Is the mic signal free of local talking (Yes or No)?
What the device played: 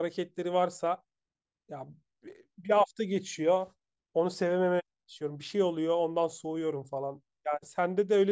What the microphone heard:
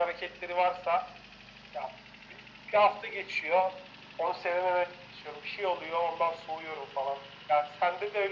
Yes